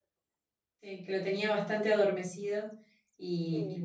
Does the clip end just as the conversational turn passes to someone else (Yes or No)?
No